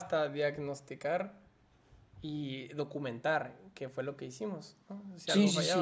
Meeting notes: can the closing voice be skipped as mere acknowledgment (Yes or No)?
No